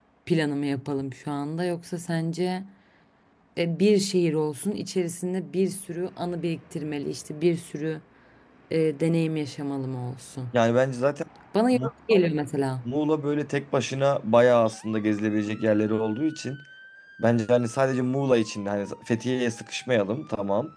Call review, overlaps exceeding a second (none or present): none